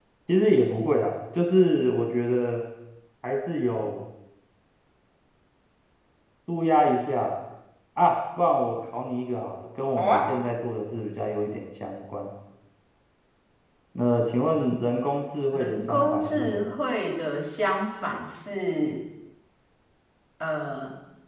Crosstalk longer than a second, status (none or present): present